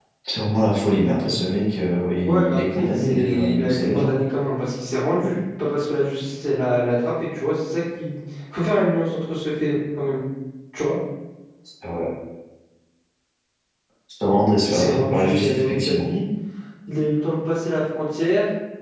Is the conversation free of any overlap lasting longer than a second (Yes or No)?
No